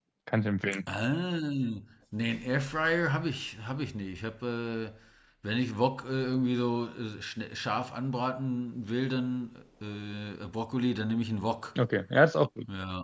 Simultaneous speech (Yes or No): No